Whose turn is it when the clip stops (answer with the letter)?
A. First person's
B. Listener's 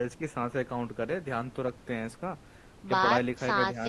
B